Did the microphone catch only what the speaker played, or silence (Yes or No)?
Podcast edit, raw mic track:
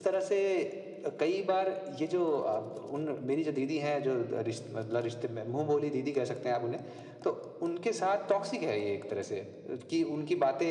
Yes